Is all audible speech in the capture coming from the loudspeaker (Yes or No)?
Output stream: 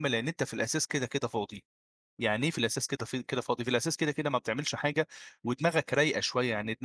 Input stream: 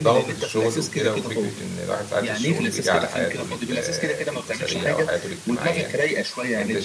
No